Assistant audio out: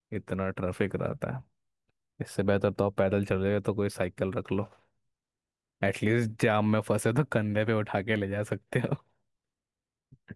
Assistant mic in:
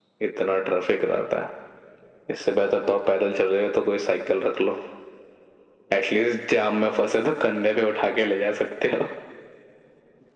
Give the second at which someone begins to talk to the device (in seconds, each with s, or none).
none